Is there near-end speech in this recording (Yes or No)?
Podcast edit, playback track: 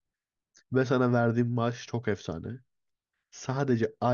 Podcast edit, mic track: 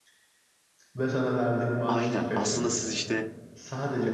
Yes